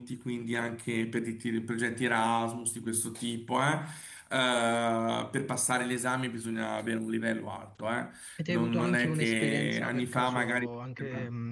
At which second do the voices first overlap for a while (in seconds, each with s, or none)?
8.5 s